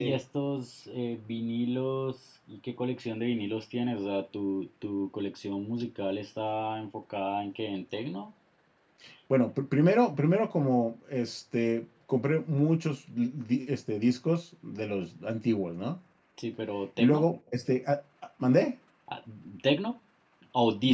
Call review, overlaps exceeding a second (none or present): none